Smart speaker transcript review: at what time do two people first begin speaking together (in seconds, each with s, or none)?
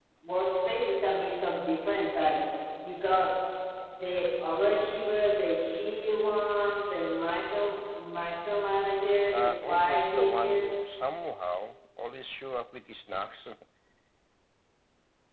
9.3 s